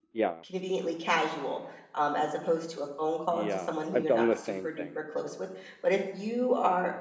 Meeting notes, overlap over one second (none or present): present